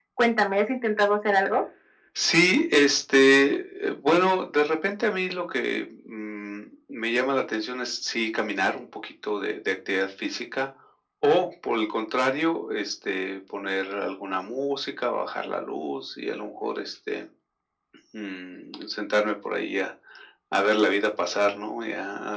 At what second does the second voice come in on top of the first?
none

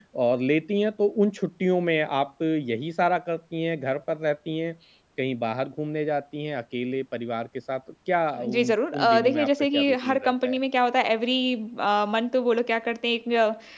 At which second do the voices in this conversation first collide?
8.4 s

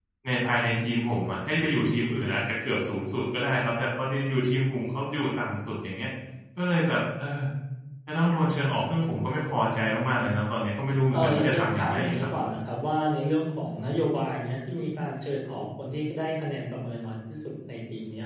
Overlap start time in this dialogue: 11.1 s

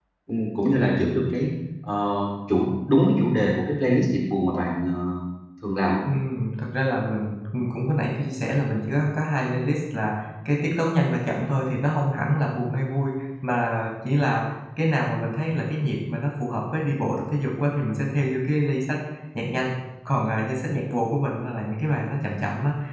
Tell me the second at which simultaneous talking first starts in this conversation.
none

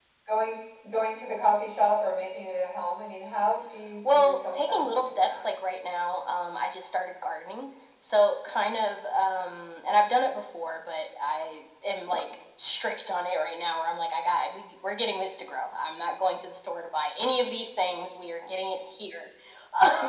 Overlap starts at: 4.0 s

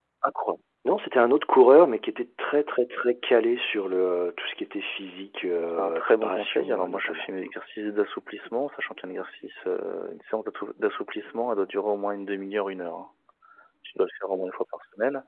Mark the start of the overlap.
5.7 s

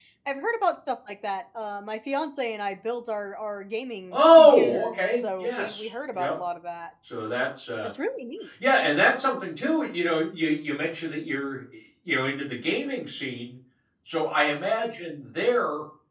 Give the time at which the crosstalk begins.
4.1 s

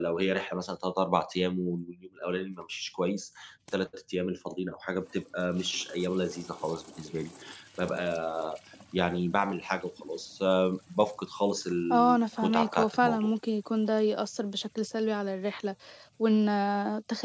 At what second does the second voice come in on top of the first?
11.9 s

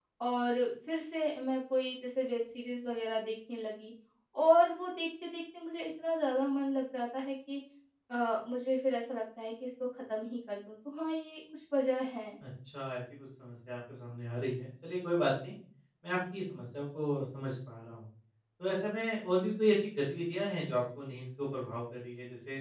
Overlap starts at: none

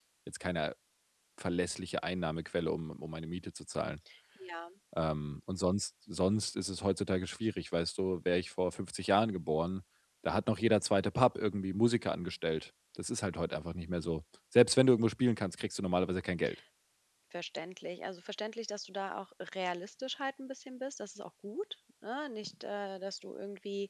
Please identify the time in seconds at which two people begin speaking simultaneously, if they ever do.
none

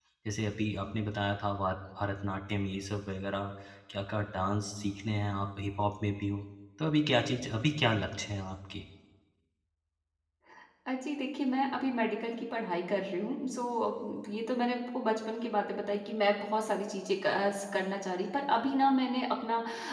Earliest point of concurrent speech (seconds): none

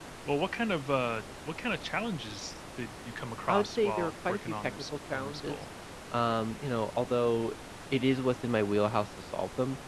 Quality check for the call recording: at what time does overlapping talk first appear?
3.5 s

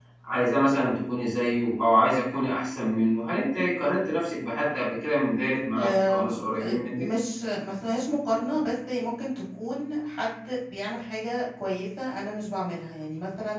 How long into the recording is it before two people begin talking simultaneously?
5.8 s

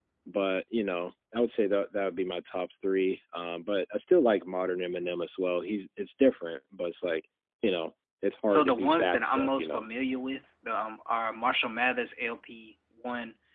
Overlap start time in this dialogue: 8.5 s

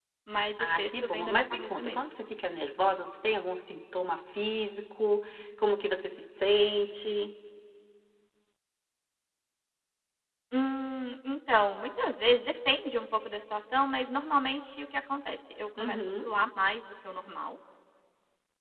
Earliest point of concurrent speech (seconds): 0.6 s

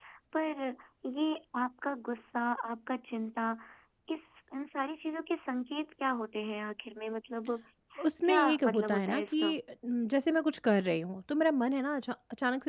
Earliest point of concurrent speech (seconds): 8.2 s

